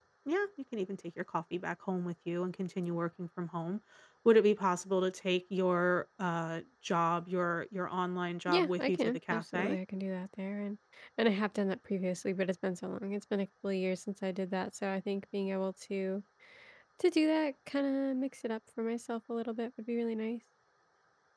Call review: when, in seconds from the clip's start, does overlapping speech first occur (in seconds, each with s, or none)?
8.5 s